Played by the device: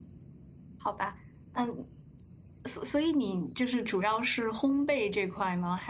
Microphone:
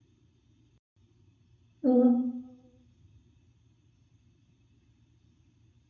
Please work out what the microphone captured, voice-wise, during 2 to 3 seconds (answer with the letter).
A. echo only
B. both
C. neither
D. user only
D